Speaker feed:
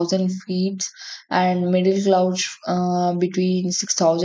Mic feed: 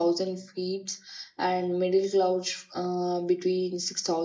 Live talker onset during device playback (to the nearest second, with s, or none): none